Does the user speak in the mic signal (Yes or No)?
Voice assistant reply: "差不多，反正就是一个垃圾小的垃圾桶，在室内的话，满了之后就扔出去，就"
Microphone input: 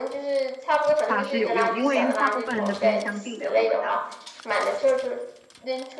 Yes